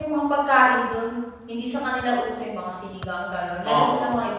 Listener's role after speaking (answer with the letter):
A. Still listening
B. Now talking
B